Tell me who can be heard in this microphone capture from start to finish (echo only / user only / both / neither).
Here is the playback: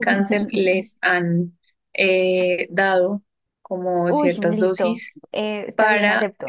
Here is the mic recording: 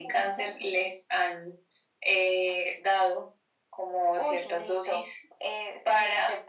echo only